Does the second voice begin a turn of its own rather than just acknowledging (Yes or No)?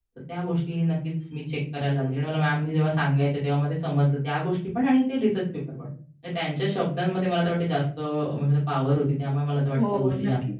Yes